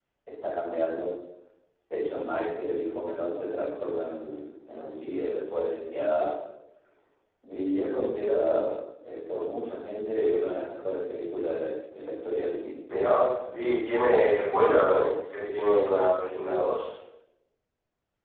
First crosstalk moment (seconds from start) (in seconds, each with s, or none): none